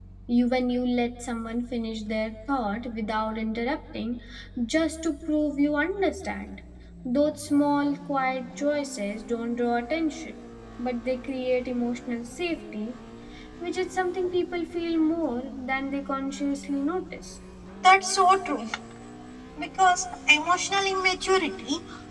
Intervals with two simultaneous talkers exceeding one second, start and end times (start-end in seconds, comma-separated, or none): none